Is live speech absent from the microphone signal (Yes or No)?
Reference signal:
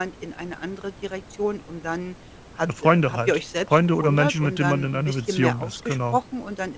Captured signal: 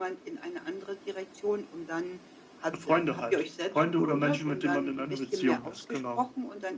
Yes